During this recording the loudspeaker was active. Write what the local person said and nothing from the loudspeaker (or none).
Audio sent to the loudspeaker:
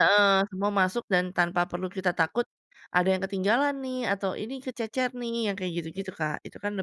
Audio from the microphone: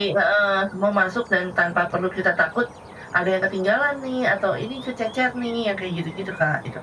none